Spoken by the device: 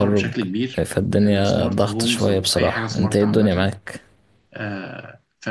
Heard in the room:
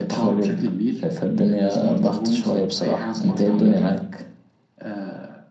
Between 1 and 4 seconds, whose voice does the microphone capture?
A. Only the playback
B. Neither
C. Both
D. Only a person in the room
A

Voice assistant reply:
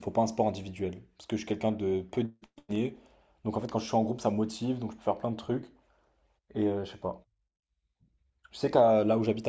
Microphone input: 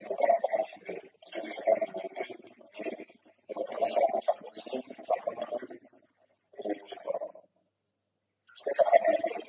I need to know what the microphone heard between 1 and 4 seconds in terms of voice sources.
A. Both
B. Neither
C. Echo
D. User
C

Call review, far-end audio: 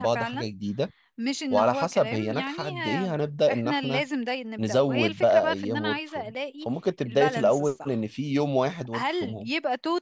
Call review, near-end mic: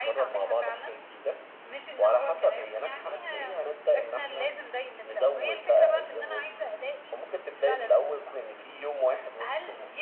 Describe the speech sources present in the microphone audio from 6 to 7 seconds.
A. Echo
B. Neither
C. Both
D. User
A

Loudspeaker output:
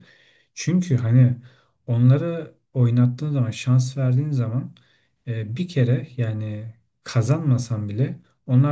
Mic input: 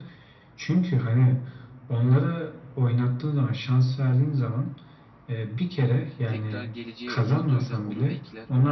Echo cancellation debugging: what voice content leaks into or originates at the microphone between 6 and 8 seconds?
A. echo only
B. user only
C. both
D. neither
C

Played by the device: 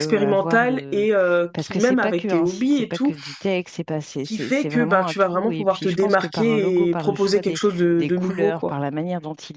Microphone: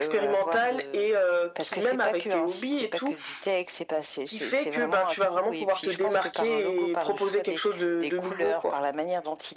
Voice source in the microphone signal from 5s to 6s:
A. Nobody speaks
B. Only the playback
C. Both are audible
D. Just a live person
B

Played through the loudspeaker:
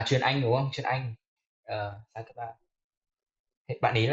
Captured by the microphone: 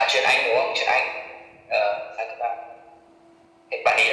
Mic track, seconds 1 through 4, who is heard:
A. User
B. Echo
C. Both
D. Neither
B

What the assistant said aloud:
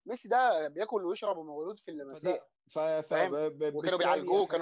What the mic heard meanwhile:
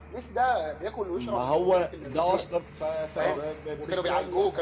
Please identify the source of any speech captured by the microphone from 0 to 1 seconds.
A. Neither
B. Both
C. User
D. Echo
D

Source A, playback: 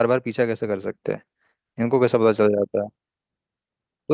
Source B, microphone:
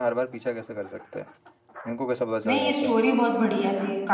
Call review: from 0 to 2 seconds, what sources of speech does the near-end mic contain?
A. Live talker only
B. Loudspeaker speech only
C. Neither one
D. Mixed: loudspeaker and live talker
B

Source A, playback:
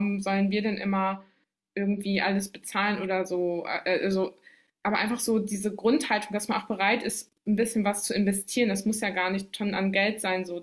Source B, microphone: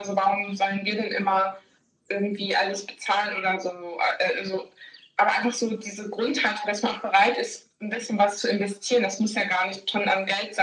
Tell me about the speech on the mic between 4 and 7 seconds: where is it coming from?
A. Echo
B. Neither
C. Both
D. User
A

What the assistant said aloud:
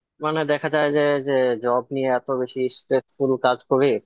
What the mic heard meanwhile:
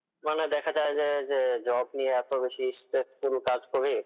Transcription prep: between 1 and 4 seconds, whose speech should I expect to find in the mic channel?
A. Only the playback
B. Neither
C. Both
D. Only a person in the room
A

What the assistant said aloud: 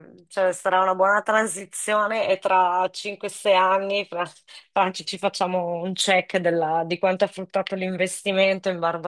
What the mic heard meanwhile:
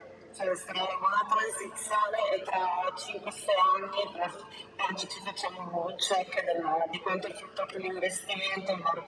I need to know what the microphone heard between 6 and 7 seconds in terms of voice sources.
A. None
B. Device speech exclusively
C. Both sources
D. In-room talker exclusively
B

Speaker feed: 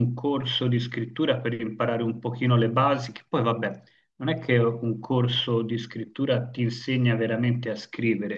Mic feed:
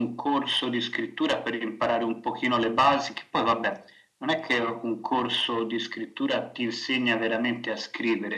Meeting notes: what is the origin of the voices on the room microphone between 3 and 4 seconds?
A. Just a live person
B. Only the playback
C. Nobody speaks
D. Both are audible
B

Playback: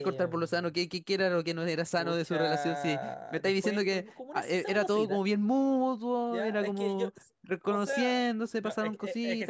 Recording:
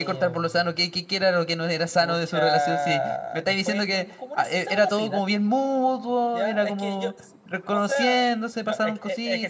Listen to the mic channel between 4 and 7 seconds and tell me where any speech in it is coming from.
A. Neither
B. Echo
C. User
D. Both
B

